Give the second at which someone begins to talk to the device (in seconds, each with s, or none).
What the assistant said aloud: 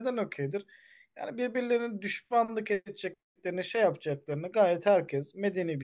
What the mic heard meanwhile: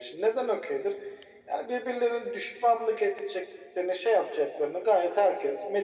none